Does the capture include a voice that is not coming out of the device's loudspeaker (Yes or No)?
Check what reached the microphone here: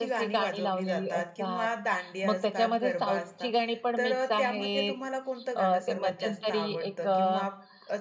No